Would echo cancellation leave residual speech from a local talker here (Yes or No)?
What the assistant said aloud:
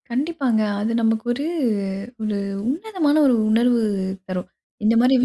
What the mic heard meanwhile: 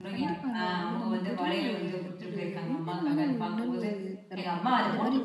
Yes